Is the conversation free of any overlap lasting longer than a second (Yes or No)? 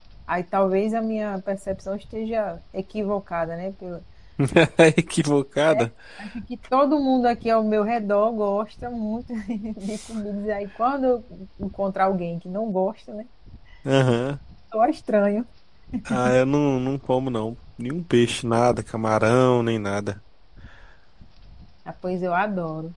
Yes